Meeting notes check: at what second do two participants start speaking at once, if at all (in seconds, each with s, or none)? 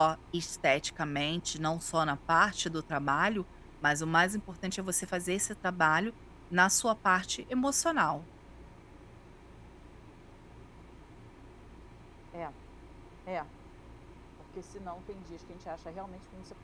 none